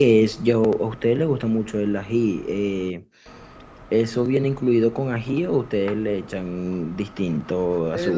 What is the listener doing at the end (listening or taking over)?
taking over